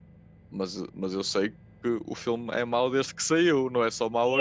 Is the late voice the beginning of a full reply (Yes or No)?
Yes